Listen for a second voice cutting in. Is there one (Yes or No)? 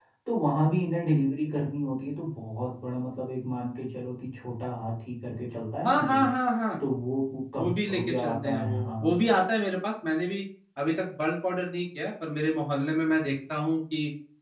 Yes